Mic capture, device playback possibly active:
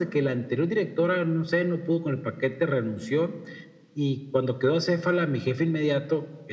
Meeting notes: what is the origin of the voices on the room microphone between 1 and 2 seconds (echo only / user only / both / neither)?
echo only